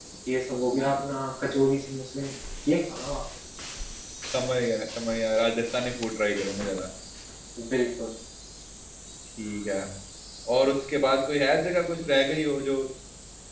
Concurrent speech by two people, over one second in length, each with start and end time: none

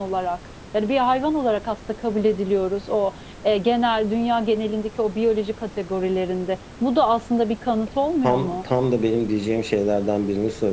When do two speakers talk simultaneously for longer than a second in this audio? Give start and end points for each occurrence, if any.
none

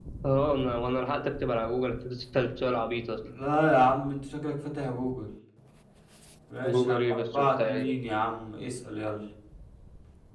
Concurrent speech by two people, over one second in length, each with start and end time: 6.6-7.8

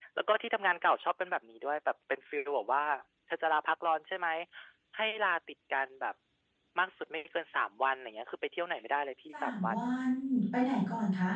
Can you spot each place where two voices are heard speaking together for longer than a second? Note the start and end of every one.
none

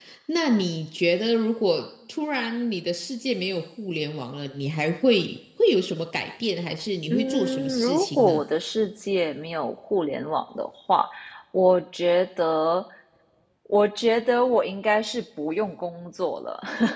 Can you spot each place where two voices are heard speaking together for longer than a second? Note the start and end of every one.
7.1-8.4

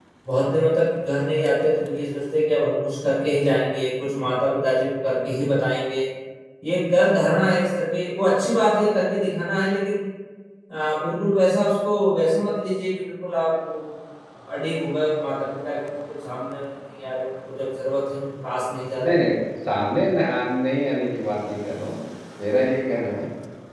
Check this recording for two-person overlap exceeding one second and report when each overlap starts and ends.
none

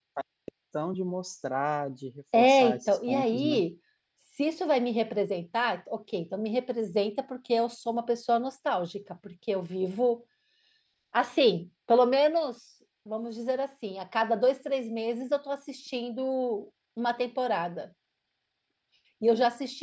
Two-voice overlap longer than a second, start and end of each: 2.3-3.6

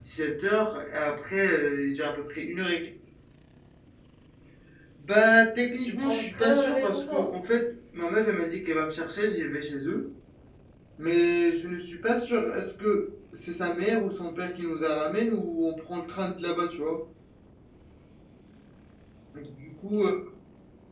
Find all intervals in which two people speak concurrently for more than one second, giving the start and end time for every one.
5.8-7.3

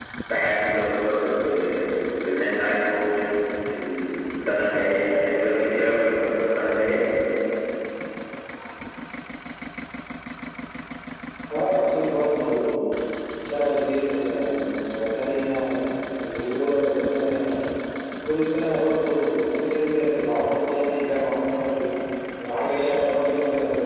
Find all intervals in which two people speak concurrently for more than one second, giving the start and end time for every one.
none

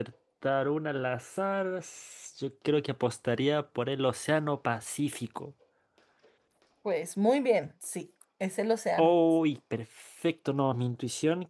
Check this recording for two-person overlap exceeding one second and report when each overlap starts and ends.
none

